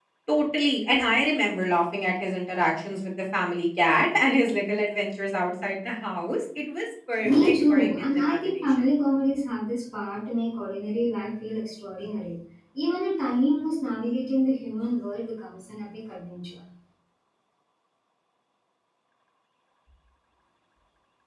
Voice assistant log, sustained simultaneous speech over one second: present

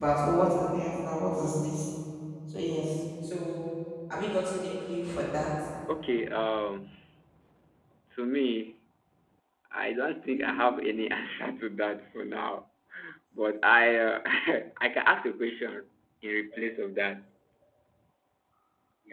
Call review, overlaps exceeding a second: none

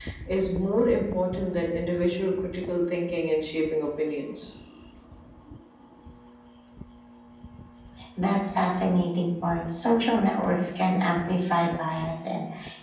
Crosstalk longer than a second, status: none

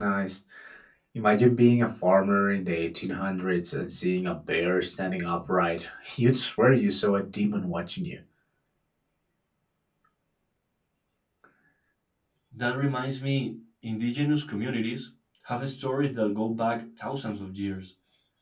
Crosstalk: none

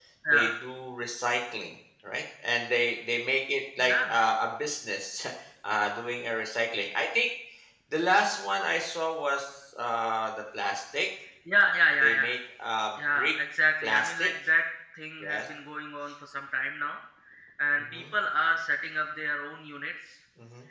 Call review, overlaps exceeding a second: none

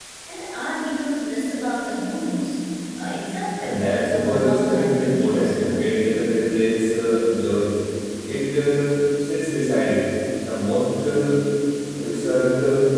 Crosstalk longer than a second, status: present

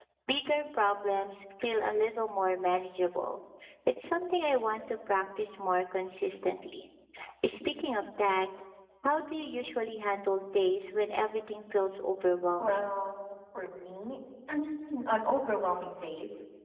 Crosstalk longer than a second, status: none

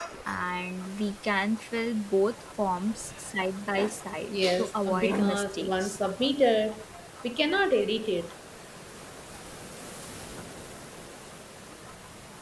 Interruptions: present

